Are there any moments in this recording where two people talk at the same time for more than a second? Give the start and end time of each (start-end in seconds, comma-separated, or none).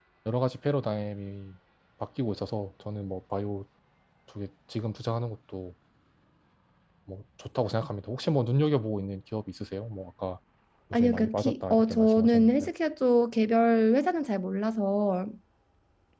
10.9-12.7